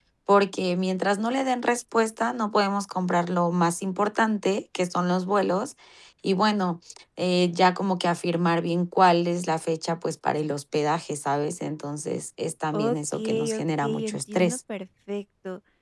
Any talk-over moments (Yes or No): Yes